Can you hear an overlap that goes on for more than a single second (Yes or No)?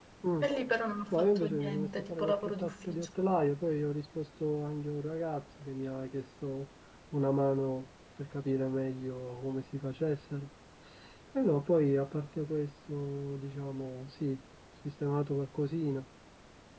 Yes